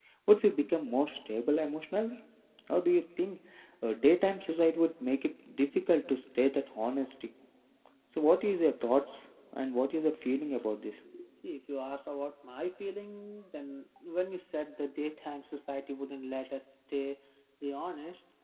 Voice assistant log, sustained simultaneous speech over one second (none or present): none